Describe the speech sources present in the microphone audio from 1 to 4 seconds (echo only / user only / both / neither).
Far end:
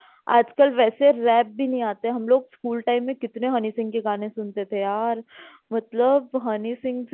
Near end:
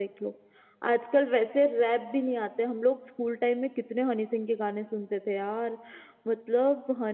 echo only